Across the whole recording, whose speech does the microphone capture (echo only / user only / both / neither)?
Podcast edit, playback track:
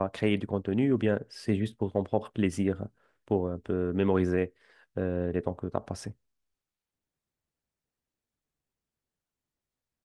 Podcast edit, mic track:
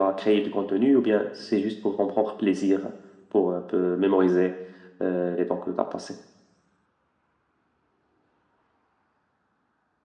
echo only